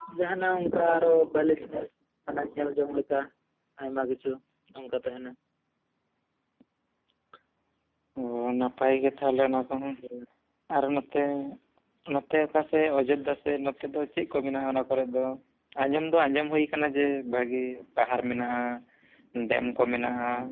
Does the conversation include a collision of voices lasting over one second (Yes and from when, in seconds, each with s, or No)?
No